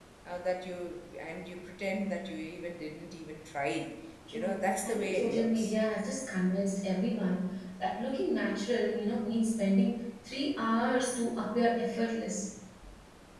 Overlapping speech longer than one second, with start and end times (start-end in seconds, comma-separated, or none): 4.3-5.7